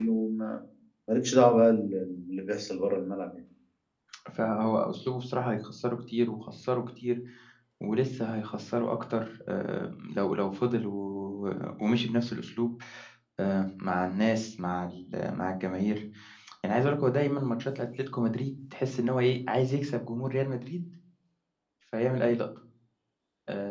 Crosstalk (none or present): none